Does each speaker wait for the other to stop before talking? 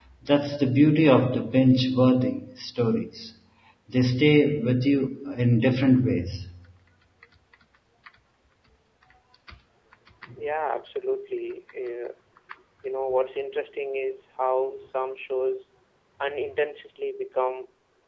Yes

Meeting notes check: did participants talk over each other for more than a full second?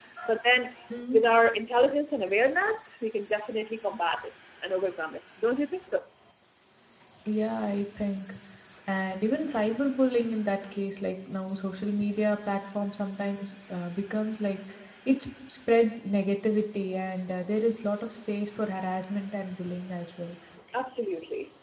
No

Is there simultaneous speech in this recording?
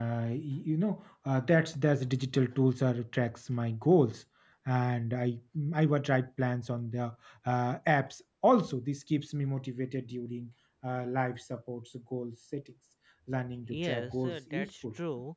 Yes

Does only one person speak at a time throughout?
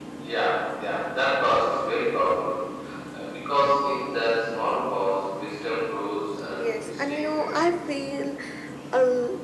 No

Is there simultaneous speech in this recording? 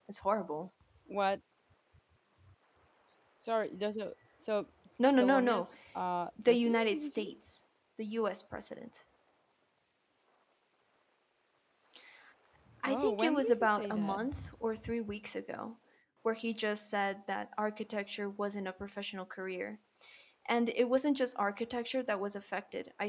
Yes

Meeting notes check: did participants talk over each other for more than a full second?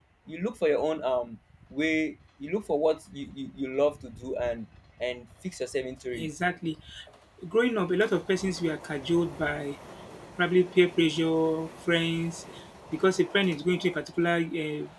No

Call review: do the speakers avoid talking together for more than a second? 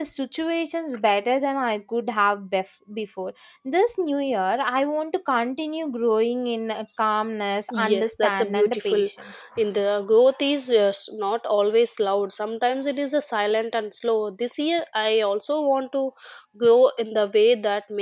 No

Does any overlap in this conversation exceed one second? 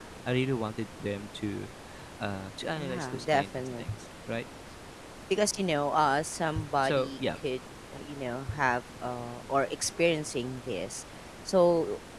Yes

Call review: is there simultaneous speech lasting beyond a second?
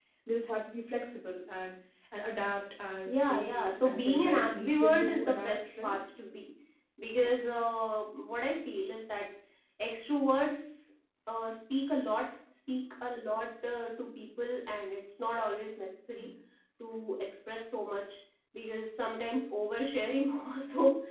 Yes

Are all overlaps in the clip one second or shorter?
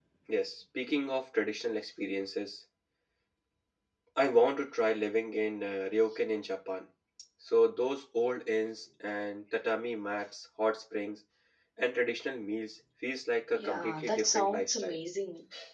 No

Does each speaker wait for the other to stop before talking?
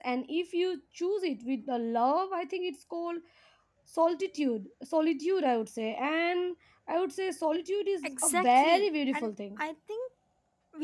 No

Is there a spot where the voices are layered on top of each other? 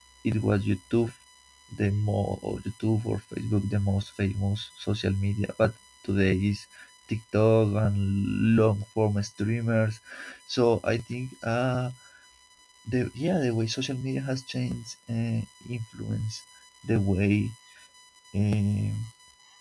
No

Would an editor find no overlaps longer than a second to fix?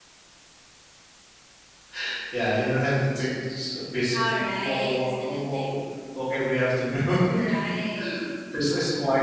No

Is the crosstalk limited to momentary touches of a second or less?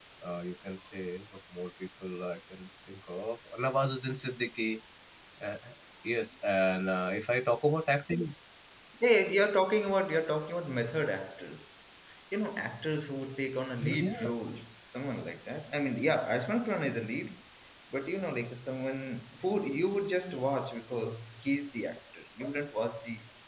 Yes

